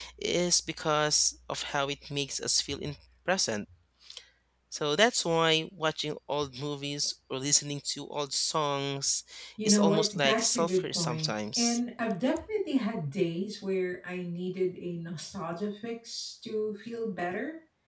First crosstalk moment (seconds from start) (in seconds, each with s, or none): 9.6 s